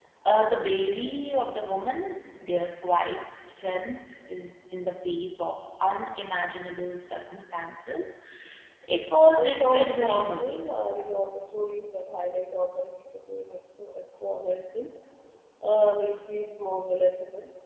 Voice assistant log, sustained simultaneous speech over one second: present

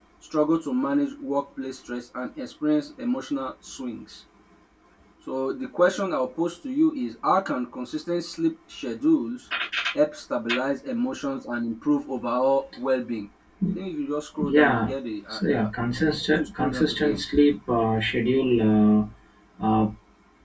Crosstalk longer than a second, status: present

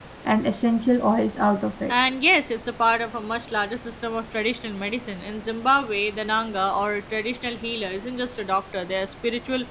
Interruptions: none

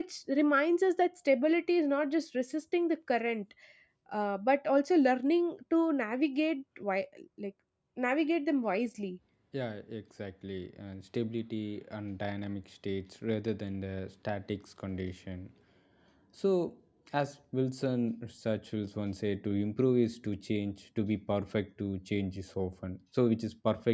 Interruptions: none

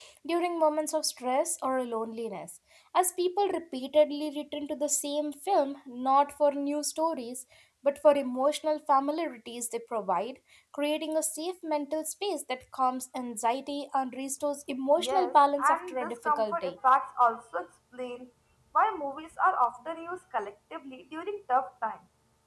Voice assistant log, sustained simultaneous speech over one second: present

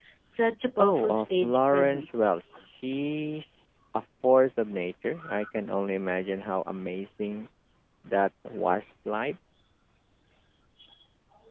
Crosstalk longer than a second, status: present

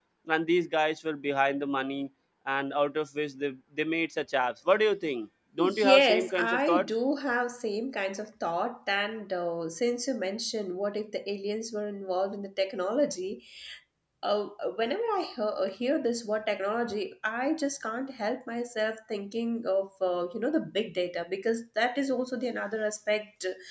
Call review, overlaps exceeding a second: present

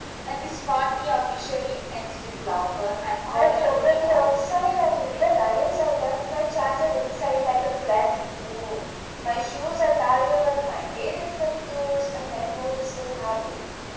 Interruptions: present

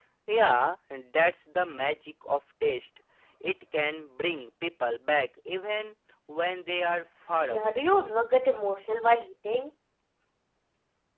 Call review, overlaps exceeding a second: none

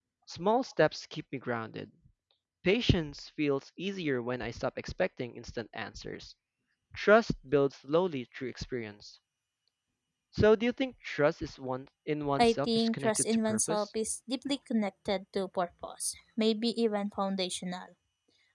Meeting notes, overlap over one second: present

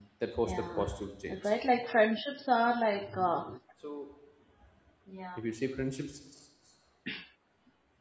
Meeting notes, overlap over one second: none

